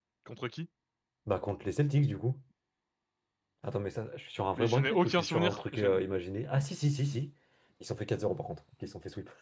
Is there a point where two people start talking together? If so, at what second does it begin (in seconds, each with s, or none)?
4.6 s